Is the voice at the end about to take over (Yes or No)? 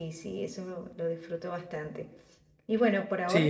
Yes